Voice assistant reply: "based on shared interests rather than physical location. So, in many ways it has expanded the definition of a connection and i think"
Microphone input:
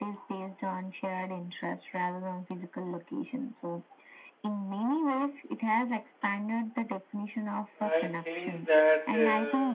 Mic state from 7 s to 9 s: both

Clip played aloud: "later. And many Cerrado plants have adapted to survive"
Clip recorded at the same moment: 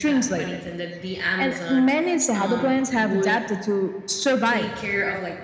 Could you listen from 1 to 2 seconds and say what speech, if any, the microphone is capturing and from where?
both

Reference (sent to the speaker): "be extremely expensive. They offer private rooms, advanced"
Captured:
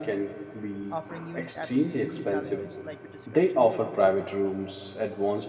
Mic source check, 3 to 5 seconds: both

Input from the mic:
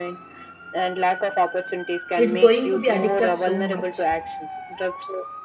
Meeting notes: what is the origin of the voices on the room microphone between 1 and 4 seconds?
both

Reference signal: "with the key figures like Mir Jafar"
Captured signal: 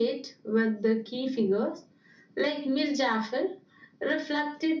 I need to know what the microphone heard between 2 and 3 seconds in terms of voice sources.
echo only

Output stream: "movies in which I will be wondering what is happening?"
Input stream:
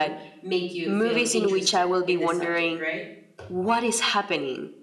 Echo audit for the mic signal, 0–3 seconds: both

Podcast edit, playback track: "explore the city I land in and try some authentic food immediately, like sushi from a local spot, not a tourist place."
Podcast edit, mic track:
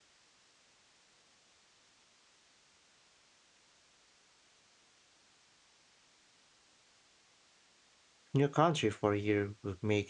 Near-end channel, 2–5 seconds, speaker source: neither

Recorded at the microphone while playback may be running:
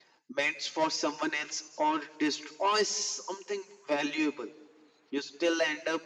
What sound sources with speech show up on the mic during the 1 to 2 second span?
echo only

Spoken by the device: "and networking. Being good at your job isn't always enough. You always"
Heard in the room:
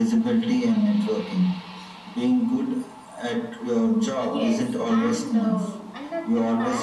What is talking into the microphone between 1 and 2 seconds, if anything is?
echo only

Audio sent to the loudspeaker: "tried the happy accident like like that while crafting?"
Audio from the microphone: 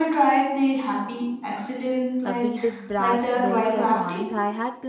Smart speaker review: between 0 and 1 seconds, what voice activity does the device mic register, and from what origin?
echo only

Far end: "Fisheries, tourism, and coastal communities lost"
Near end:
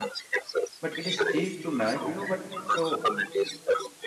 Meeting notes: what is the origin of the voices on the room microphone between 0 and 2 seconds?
both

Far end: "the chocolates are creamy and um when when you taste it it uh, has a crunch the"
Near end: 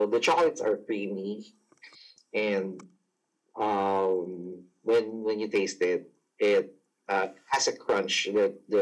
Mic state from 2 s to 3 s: echo only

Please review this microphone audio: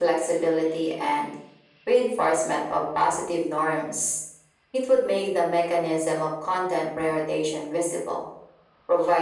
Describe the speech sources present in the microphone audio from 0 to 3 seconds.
echo only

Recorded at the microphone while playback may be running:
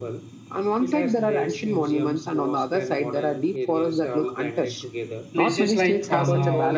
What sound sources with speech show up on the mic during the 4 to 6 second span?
both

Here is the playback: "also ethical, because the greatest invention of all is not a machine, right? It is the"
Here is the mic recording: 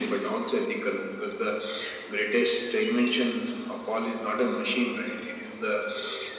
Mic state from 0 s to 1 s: echo only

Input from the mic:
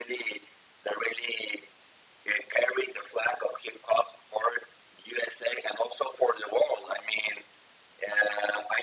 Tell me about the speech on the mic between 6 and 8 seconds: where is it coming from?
echo only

